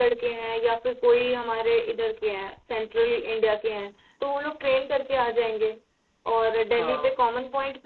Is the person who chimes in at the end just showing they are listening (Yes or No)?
Yes